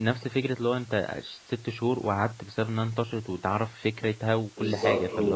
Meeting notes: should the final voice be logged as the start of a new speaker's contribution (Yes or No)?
Yes